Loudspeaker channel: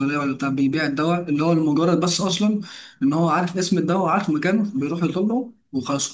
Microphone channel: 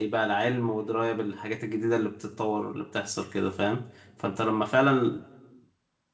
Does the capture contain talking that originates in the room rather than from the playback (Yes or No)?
Yes